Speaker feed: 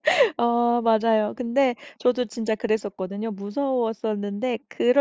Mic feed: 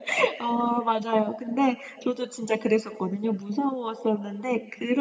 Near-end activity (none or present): none